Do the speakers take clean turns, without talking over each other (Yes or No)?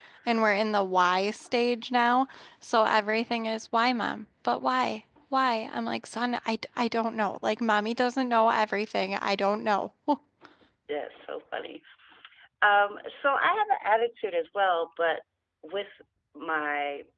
Yes